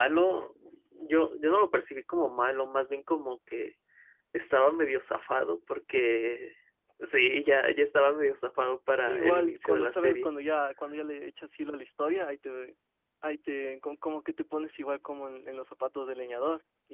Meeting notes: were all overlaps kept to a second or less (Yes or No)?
No